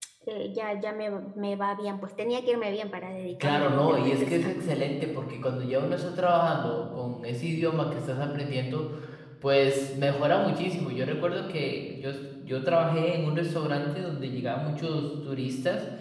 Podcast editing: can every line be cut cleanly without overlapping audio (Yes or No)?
No